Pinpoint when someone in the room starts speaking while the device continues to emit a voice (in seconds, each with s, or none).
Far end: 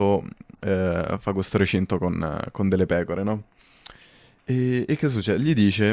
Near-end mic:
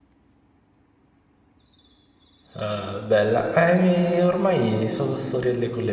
2.6 s